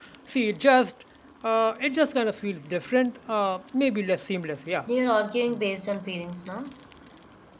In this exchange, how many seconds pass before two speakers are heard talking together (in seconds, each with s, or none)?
none